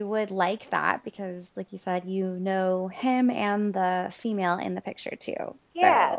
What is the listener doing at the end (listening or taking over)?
taking over